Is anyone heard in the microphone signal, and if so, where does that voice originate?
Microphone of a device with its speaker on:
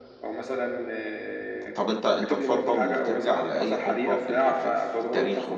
both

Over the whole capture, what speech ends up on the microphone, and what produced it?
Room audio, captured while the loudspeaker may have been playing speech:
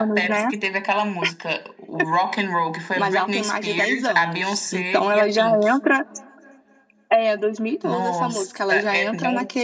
both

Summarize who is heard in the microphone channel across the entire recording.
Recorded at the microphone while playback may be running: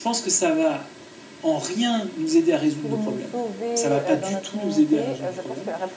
both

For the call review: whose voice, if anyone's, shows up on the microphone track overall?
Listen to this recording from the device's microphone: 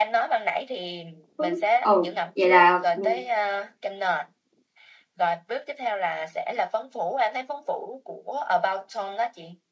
both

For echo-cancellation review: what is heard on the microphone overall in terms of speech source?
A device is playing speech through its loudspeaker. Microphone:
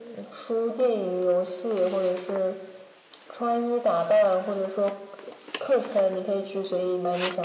echo only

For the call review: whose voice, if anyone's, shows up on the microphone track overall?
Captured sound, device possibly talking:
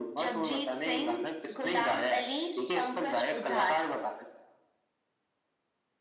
echo only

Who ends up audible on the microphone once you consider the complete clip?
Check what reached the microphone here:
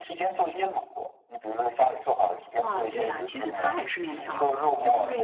both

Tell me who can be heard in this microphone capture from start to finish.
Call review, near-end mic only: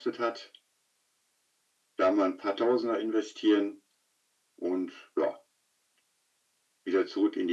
echo only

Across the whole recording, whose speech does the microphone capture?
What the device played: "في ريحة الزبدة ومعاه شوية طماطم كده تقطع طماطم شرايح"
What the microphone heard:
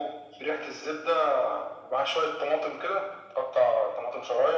echo only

